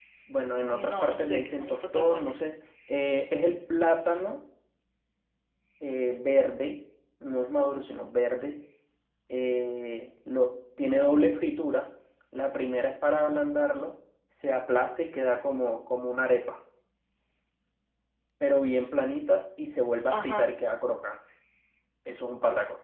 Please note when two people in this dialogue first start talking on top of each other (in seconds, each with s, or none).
0.7 s